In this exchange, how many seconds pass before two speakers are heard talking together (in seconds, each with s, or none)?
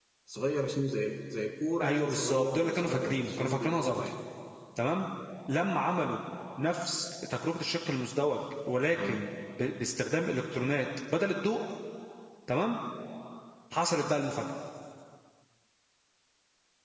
1.8 s